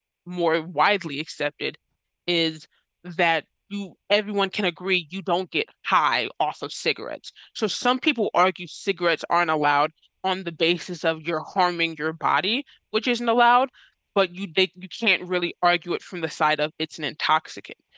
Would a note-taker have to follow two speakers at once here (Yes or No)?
No